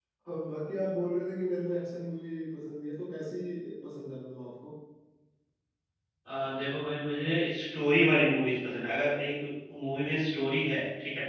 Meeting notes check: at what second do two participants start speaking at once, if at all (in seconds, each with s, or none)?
none